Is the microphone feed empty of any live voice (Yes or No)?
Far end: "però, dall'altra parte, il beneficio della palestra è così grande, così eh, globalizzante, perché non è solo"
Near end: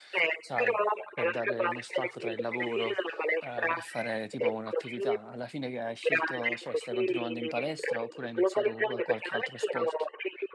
No